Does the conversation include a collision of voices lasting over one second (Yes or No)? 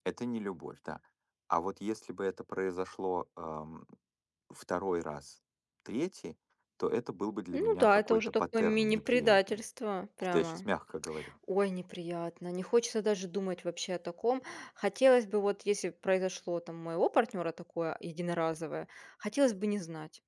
Yes